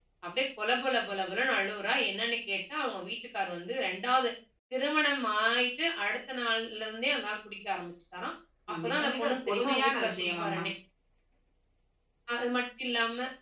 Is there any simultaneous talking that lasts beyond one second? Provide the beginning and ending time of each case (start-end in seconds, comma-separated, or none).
8.7-10.6